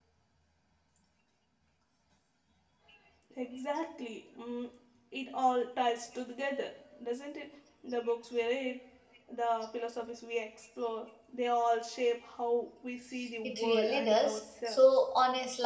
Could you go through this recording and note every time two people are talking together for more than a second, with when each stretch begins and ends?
13.4-14.8

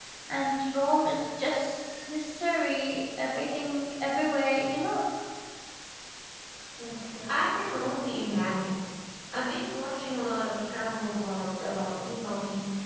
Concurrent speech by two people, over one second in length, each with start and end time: none

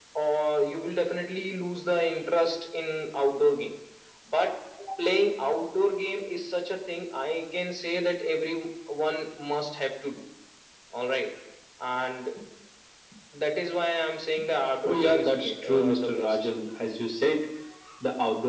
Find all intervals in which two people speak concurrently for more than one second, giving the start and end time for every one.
14.8-16.4

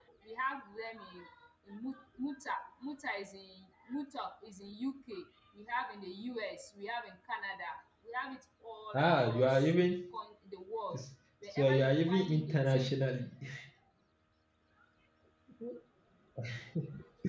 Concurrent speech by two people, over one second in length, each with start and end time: 8.9-10.2, 11.5-12.9

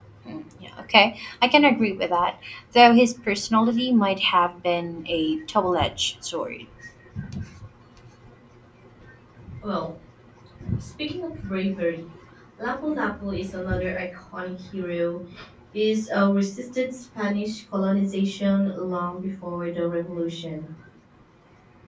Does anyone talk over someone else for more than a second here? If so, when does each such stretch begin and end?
none

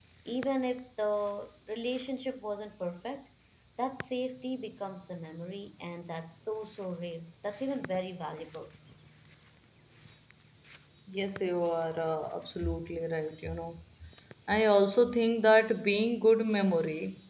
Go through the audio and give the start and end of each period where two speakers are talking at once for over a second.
none

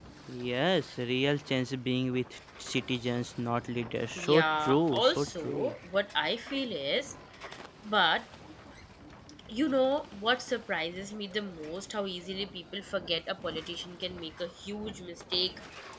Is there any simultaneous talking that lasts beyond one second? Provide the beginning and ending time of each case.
4.2-5.7

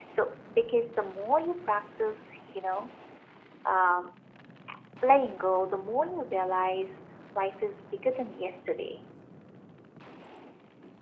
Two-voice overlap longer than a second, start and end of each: none

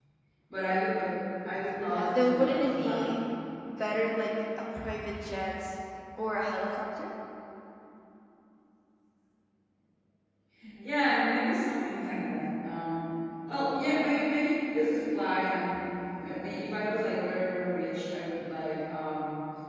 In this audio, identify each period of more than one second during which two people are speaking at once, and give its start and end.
1.9-3.1

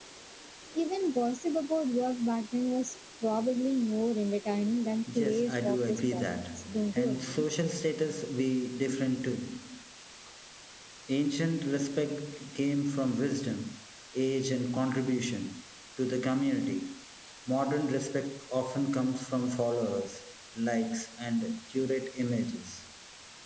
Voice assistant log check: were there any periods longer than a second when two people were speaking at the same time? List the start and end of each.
5.2-7.5

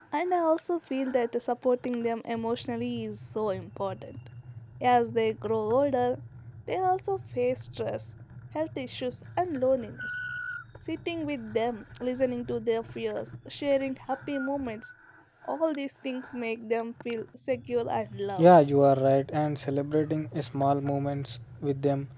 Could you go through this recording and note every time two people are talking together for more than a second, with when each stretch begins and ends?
none

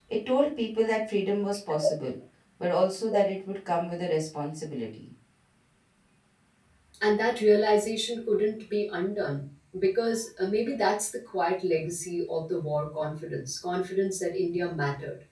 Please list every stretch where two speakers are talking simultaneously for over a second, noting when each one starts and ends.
none

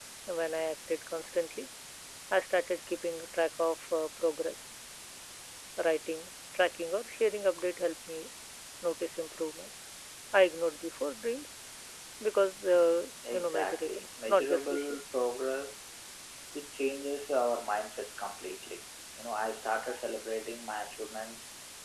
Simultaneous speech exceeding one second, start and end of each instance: 13.3-15.2

